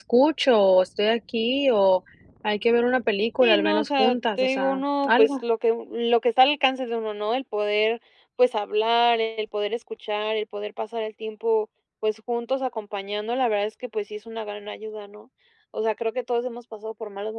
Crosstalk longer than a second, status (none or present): present